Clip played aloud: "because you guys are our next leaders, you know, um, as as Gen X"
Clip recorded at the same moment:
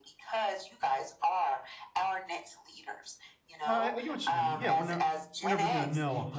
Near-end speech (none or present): present